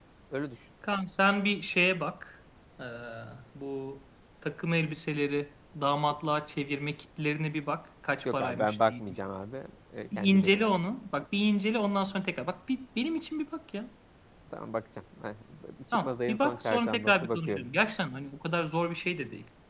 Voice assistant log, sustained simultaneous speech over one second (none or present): present